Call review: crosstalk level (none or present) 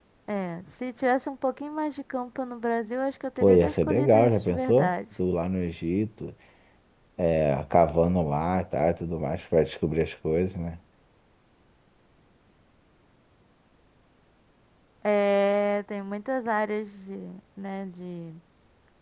present